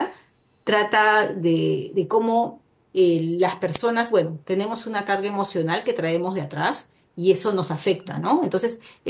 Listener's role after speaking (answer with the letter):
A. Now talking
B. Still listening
B